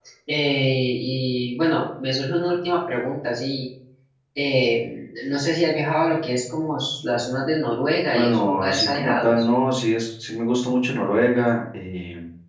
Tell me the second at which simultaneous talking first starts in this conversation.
8.1 s

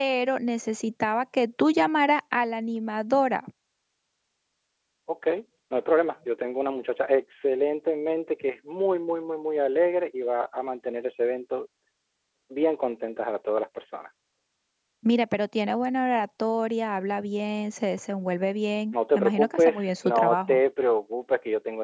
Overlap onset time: 18.9 s

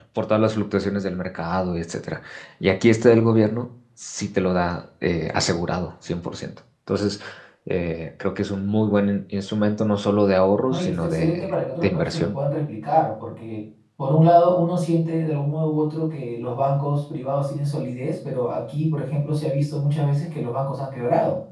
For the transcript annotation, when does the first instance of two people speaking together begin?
10.7 s

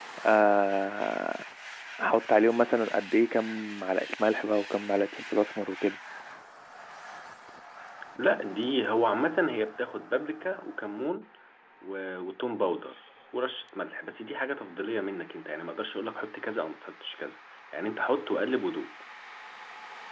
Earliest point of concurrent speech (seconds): none

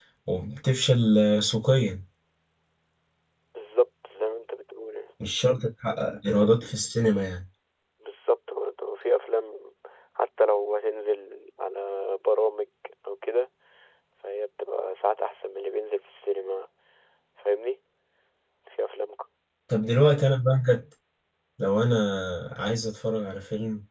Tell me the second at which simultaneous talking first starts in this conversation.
none

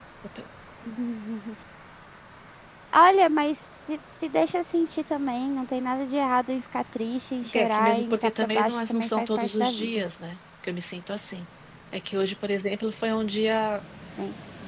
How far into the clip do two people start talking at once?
7.4 s

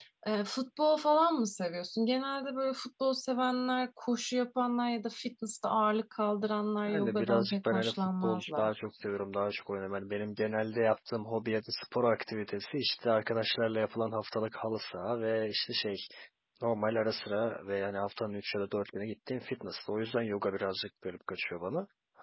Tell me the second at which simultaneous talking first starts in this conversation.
6.9 s

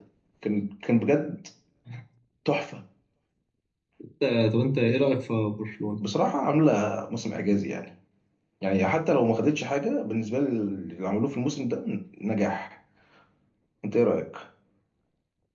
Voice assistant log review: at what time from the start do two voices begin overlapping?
none

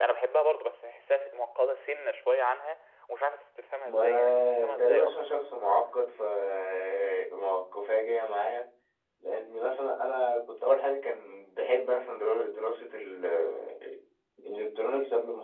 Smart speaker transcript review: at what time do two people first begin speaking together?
3.8 s

